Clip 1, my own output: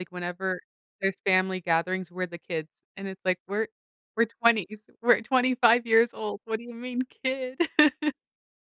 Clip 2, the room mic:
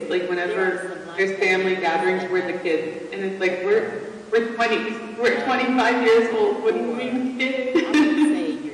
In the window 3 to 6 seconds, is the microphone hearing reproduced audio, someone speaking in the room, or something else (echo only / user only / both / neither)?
both